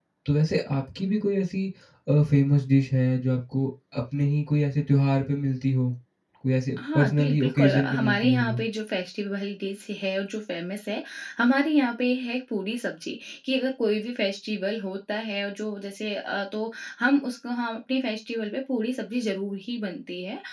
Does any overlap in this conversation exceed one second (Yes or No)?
Yes